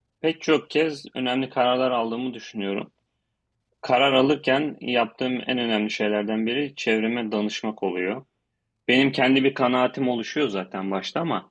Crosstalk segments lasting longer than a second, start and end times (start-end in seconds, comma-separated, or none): none